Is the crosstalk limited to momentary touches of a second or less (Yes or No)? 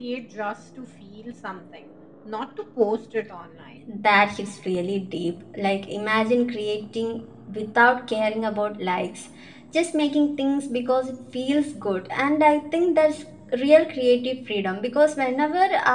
Yes